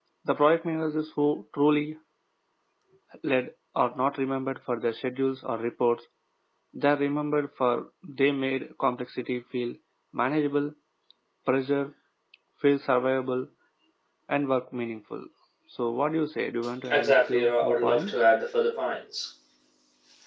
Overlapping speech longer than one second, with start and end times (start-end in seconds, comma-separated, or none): 16.9-18.2